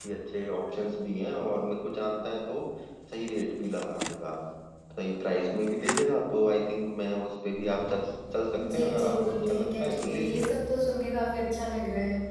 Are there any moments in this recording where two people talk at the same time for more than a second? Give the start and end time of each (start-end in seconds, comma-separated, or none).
8.6-10.5